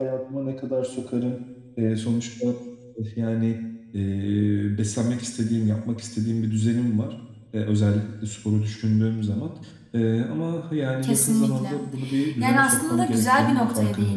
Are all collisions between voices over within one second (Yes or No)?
No